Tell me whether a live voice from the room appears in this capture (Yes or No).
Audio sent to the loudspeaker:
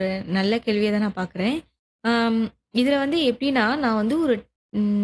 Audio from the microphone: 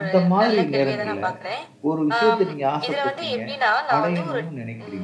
Yes